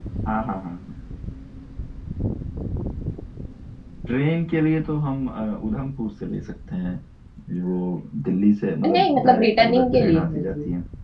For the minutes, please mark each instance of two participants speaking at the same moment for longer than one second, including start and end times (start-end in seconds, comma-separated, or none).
8.9-10.4